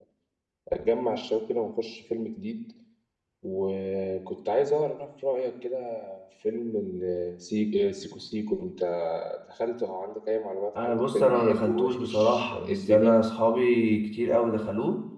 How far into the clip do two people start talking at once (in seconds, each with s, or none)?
10.8 s